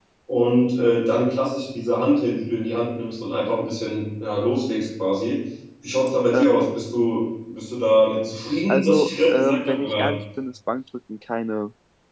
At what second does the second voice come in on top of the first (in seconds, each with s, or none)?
8.7 s